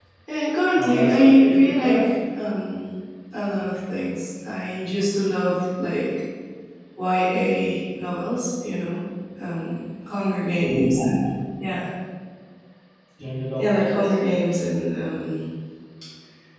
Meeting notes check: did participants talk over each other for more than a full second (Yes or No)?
Yes